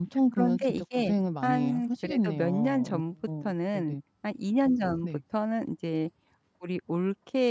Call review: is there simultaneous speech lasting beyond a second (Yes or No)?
Yes